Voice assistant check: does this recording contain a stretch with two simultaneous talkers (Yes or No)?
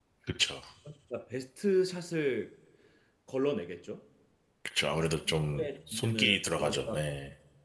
Yes